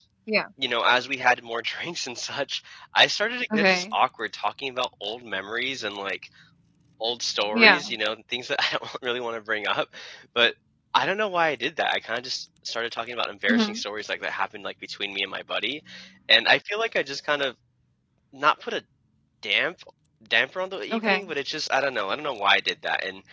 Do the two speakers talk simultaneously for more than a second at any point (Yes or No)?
No